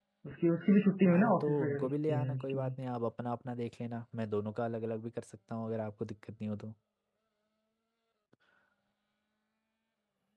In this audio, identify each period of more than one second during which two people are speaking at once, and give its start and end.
1.0-2.8

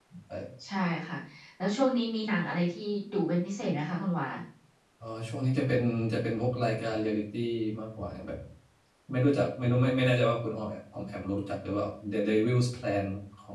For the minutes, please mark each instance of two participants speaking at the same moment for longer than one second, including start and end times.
none

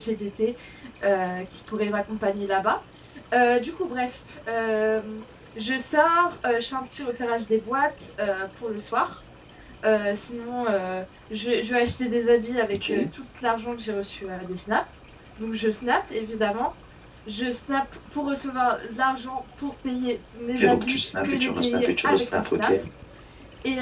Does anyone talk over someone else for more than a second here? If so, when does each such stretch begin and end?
20.6-22.7

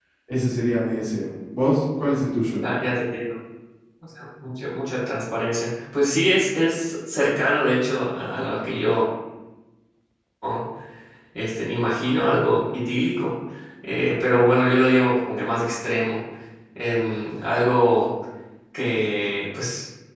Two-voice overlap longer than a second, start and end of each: none

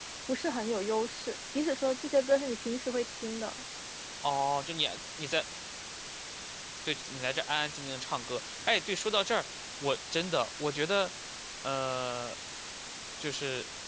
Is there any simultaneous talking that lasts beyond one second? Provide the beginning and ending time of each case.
none

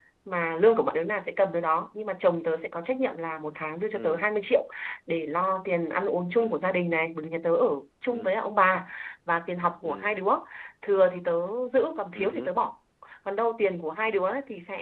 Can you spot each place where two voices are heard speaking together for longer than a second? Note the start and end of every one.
none

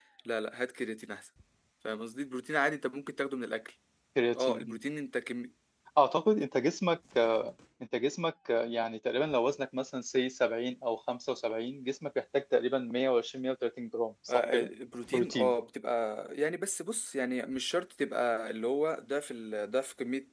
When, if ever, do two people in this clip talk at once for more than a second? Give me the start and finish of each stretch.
none

